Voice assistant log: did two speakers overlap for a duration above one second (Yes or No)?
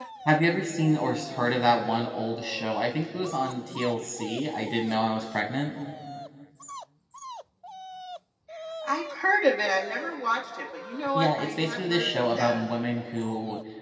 Yes